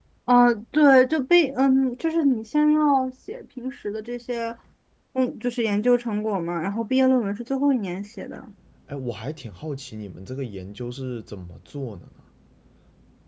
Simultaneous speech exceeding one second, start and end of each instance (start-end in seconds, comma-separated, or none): none